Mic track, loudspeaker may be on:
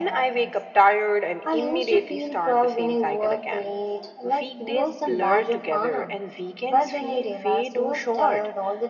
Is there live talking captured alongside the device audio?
No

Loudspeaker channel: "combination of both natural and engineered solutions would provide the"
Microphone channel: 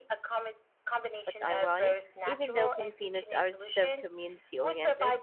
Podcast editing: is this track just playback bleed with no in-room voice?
No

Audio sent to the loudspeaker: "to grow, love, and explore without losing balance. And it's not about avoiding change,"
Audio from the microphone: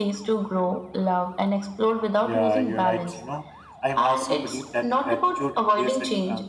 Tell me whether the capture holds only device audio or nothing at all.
No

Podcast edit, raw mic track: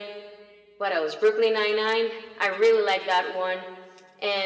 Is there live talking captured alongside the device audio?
No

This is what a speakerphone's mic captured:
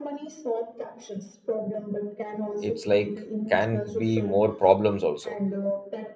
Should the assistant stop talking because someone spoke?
Yes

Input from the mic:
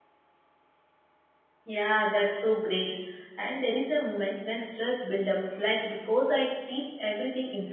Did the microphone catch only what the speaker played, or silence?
No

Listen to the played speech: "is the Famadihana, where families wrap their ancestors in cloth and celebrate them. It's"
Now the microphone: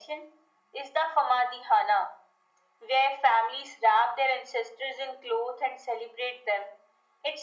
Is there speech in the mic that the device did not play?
No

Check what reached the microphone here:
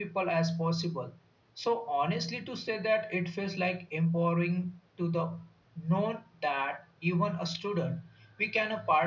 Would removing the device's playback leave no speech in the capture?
Yes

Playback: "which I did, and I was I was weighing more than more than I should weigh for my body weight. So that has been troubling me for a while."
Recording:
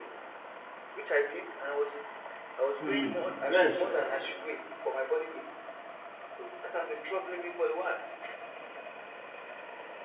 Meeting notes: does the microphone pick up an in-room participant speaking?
Yes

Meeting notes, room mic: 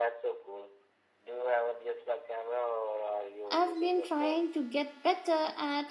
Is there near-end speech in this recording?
Yes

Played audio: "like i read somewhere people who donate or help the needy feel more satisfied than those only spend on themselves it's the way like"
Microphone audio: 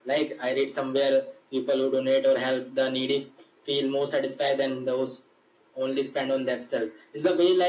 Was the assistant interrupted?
No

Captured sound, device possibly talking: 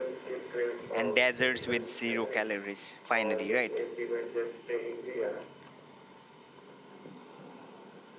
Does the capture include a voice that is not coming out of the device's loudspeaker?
Yes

